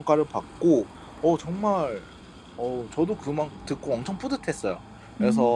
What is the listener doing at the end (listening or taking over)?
listening